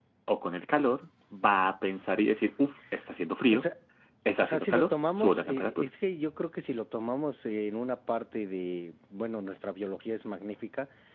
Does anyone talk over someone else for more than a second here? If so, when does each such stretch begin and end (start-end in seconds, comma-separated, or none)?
4.4-5.9